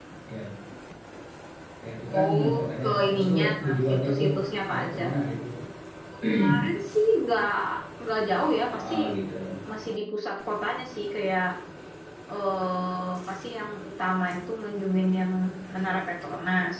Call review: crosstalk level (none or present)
present